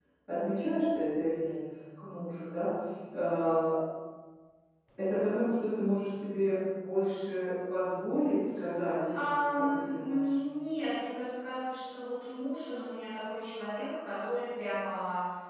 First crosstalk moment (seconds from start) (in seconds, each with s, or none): 9.1 s